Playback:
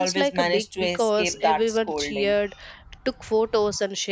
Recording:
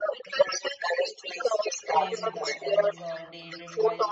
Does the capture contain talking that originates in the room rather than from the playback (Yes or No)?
Yes